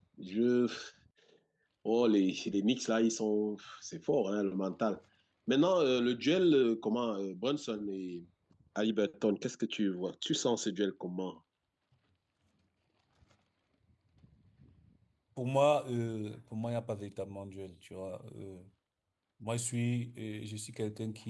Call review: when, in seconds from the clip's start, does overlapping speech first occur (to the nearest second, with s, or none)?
none